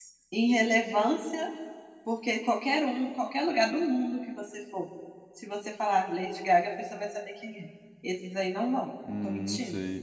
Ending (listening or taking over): taking over